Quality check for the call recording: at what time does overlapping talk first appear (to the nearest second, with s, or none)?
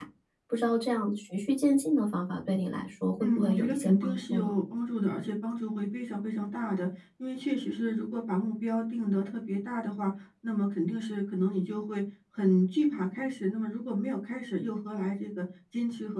3 s